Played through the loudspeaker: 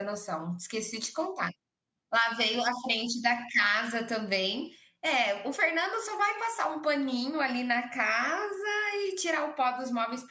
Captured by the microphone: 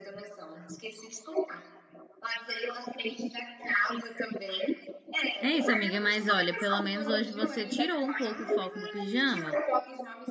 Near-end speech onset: 5 s

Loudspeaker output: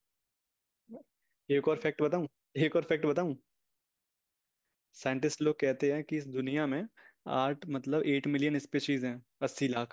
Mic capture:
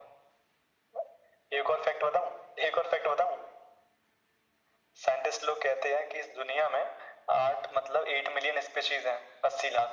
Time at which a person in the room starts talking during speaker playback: none

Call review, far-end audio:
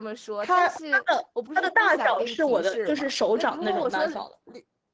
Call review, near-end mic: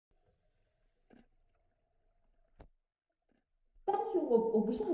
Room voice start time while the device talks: 4 s

